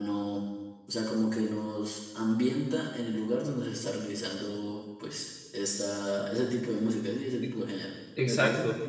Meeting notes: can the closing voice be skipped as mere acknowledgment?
No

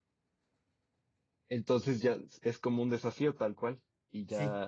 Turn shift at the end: Yes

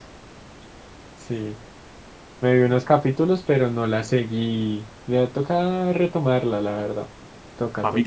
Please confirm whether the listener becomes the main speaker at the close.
Yes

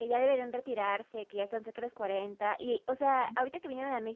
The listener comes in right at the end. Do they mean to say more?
No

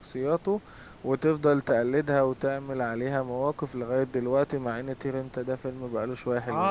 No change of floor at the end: No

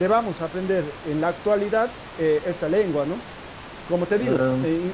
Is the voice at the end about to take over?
No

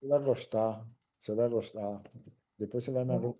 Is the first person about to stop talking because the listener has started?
No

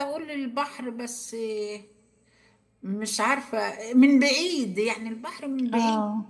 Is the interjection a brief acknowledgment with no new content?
No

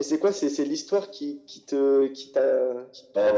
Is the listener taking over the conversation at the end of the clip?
Yes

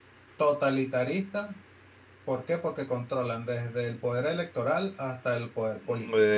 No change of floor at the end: No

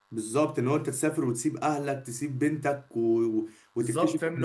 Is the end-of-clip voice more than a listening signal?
Yes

